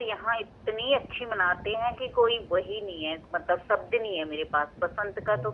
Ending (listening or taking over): listening